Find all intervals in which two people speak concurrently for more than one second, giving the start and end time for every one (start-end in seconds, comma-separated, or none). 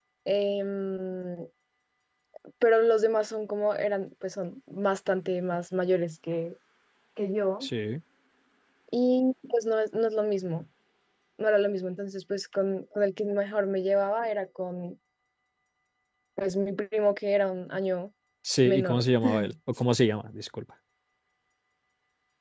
none